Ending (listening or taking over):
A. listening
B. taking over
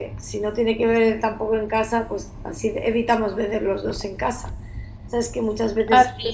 A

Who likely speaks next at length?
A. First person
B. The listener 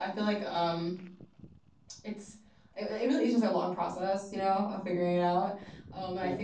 A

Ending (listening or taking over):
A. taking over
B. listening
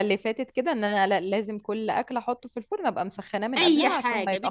A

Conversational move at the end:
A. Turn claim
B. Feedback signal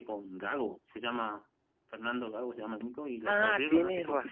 A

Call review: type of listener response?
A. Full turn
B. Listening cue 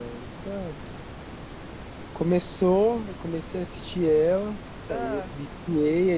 B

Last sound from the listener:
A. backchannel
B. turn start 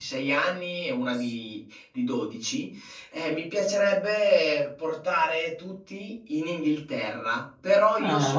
A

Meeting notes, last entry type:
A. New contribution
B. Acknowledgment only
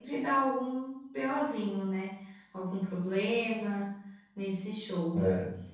B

